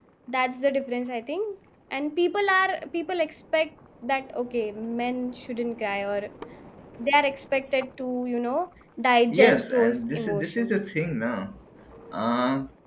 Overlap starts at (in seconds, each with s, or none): 9.3 s